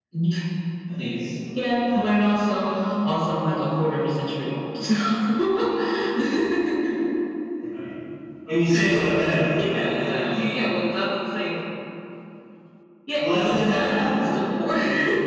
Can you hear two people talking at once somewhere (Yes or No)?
Yes